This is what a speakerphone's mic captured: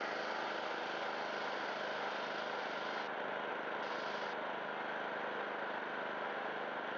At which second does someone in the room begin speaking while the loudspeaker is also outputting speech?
none

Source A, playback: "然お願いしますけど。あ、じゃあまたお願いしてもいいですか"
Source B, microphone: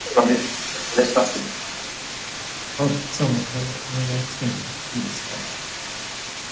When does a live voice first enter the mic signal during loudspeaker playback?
none

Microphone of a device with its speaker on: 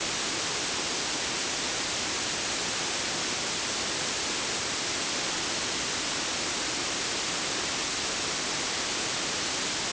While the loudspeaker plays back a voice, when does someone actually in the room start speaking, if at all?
none

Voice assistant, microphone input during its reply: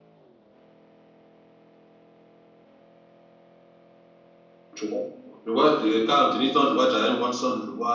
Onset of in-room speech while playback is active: 5 s

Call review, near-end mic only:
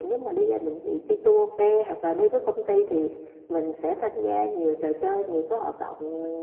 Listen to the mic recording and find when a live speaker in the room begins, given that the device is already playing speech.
none

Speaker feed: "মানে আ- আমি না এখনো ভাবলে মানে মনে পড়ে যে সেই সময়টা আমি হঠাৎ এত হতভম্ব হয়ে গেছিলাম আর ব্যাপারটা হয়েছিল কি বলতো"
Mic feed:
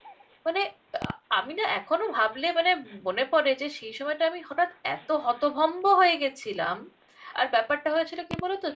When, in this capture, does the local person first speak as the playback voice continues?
none

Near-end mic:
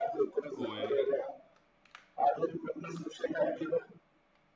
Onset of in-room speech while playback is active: 1 s

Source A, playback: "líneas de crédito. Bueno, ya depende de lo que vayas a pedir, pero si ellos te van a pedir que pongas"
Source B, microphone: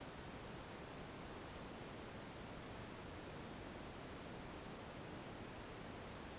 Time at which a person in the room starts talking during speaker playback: none

